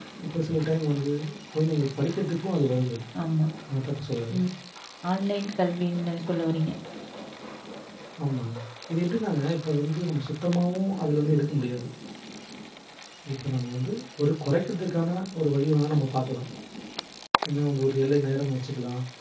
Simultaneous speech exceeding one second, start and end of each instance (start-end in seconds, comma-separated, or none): none